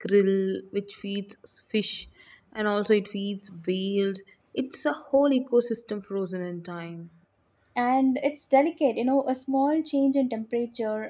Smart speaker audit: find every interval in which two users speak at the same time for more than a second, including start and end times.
none

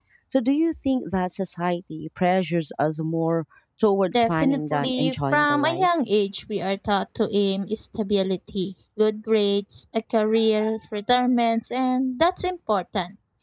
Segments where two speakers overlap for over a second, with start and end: 4.1-5.9

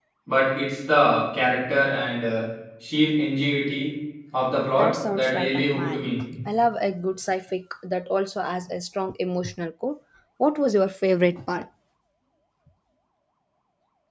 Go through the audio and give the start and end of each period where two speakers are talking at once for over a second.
4.7-6.1

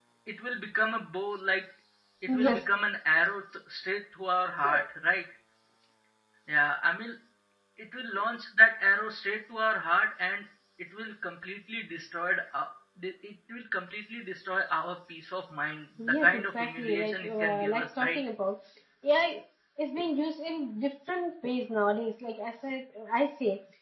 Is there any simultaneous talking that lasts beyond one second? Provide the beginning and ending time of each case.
16.1-18.2

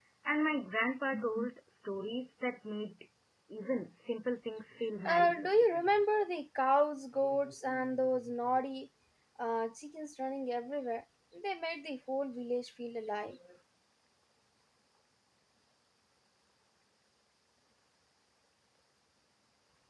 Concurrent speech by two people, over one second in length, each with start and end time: none

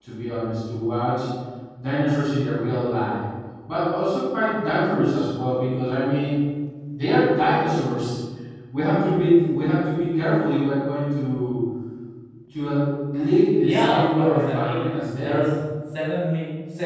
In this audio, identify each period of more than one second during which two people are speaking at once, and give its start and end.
13.6-15.5

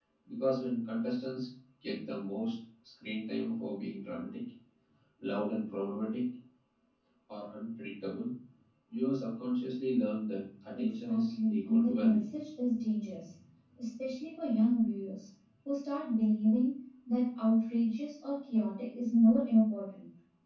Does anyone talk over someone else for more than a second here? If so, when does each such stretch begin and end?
10.8-12.3

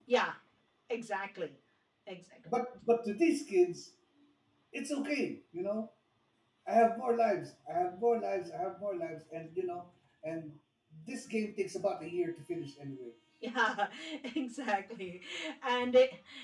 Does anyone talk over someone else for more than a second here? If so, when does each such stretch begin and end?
none

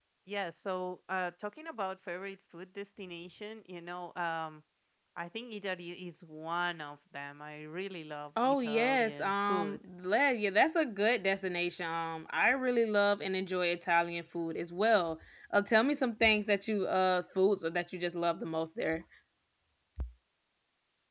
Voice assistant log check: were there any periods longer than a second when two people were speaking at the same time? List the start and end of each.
8.4-9.8

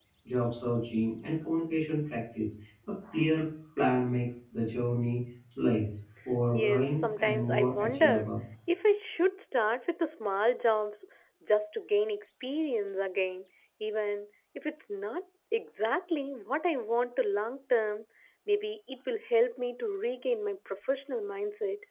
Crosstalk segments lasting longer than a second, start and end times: 6.5-8.3

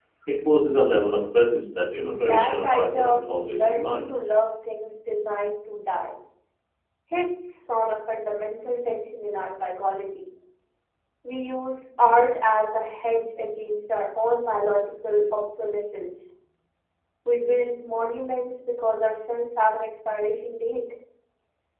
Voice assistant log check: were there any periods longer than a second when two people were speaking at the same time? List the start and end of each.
2.3-4.1

